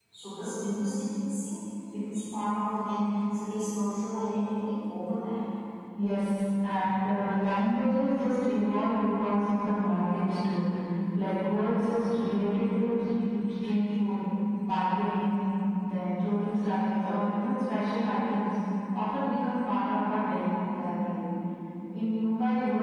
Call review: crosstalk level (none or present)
none